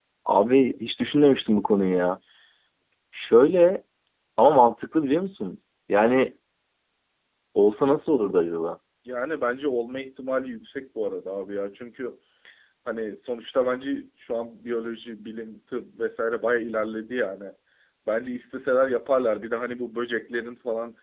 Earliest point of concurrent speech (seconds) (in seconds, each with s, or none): none